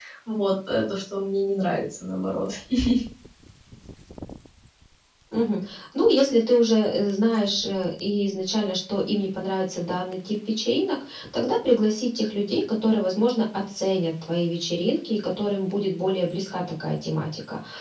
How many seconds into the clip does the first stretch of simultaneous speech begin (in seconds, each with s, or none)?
none